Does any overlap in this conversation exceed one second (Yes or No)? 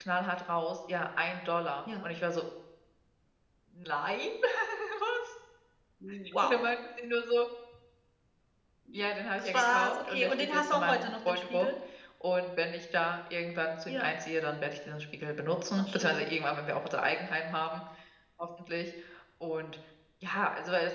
Yes